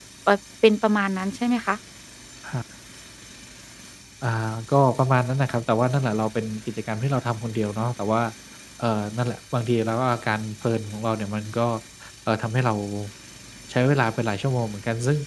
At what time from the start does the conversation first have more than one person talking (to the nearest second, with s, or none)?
none